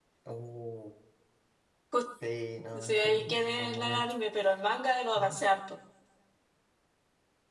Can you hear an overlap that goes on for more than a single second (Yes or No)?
Yes